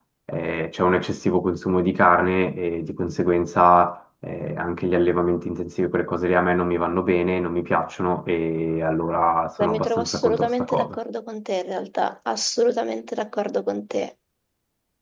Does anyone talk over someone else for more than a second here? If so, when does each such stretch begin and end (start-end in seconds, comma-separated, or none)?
9.7-11.0